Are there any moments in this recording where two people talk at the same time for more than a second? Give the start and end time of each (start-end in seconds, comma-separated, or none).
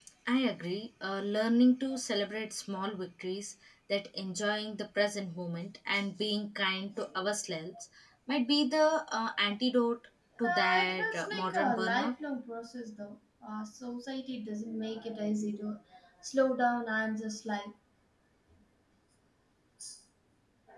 10.4-12.1